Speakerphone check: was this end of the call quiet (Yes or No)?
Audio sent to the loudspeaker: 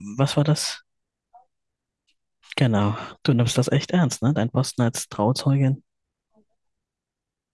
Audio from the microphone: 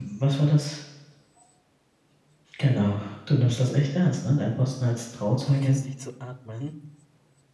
No